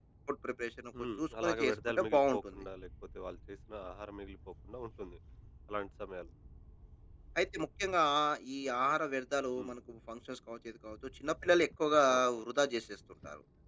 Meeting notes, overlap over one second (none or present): present